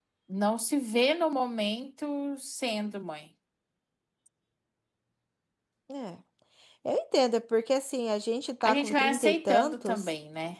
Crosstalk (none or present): present